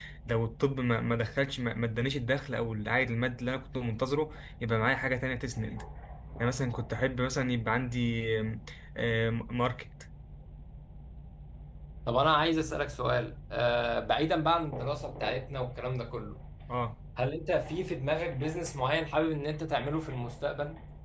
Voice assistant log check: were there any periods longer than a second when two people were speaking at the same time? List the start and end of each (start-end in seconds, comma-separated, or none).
none